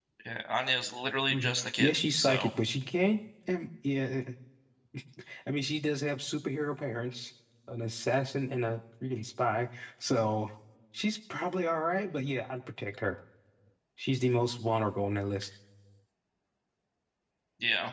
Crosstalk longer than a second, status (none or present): present